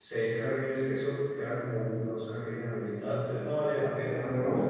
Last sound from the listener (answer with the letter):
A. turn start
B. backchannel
B